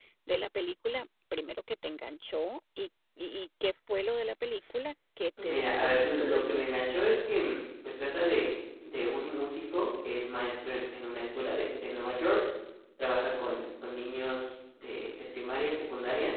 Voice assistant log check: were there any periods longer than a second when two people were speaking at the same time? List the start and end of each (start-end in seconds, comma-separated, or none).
5.4-6.8